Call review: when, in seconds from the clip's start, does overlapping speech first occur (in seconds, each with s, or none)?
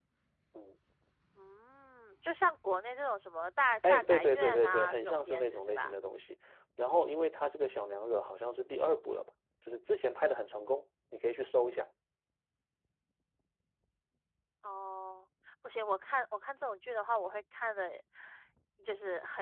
3.8 s